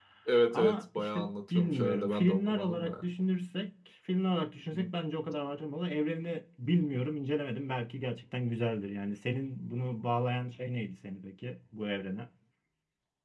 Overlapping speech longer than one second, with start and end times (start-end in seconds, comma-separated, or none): 0.5-3.1